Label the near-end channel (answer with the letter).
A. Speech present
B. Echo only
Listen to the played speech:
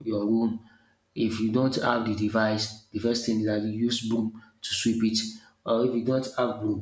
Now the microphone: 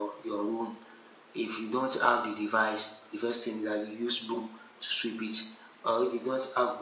B